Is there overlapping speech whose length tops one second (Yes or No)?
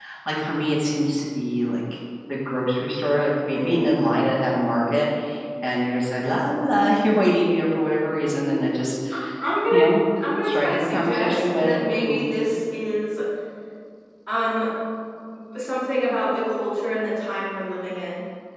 Yes